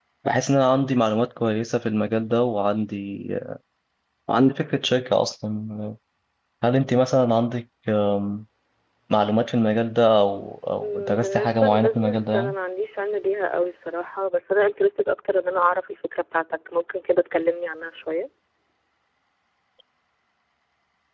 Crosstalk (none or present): present